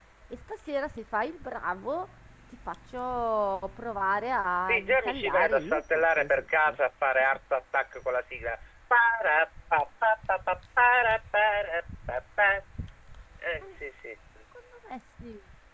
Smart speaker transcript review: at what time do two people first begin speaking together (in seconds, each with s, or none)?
4.7 s